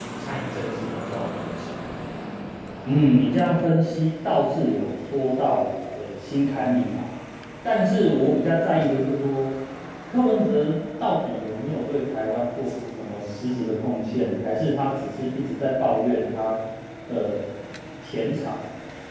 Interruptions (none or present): none